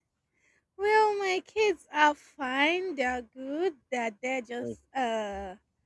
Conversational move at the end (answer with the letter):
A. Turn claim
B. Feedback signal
B